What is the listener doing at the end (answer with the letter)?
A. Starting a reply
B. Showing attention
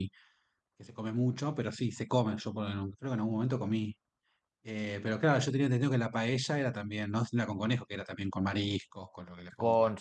A